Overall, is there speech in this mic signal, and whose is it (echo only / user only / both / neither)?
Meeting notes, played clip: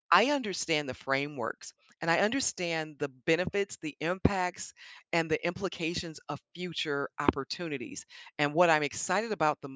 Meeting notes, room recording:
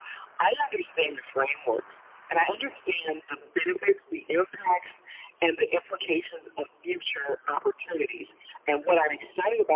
echo only